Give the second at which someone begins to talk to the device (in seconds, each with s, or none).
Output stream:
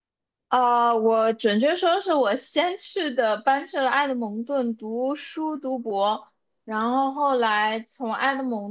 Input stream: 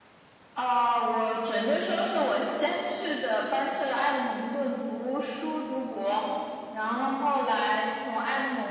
none